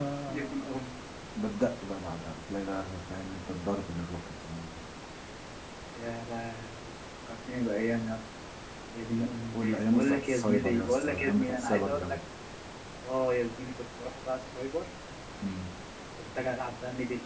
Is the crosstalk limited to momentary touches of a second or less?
No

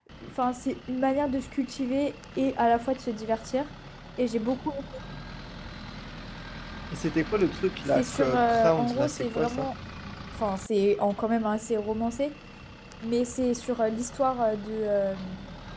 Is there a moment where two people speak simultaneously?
Yes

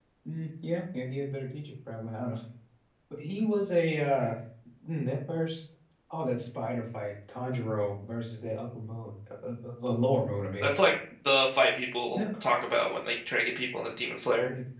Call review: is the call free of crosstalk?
Yes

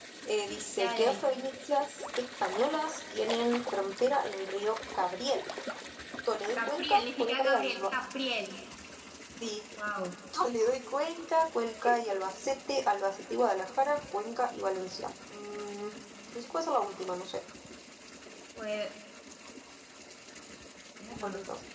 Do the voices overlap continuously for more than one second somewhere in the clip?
Yes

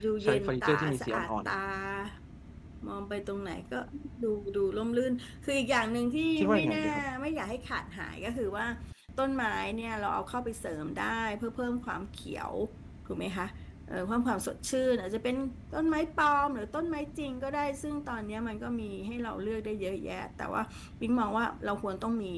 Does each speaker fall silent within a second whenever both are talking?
No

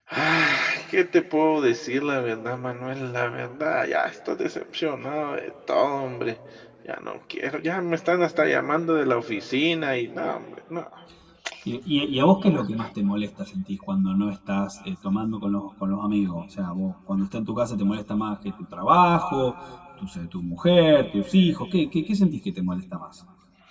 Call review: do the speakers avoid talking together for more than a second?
Yes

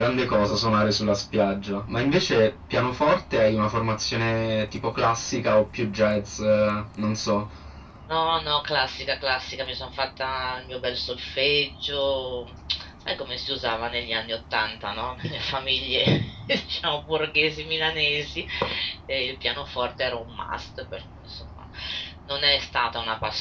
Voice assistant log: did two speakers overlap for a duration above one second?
No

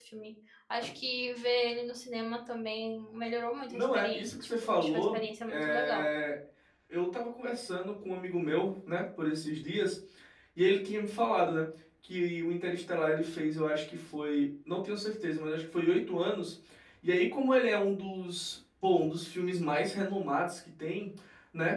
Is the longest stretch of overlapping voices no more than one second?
No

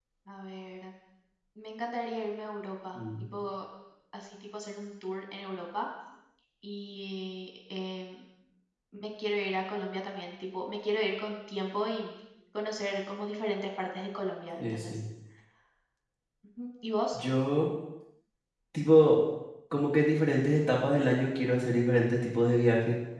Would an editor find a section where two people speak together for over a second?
No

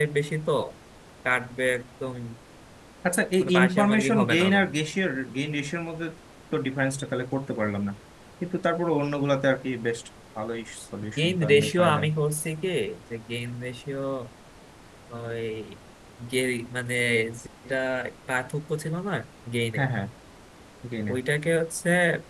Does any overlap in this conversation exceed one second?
Yes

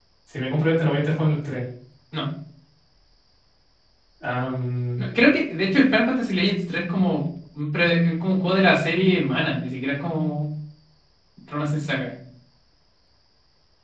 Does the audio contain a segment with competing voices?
No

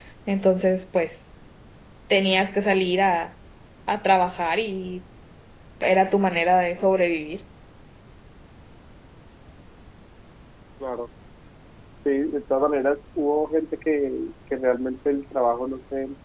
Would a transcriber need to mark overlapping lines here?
No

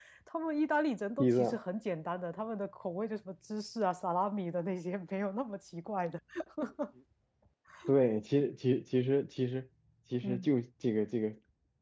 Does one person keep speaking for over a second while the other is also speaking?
No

